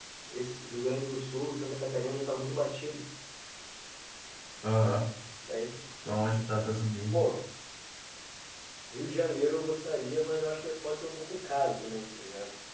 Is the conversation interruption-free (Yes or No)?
Yes